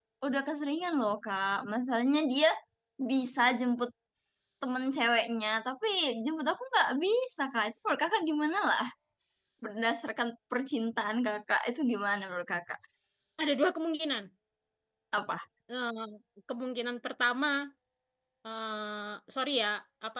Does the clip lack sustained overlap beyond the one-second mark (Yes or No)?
Yes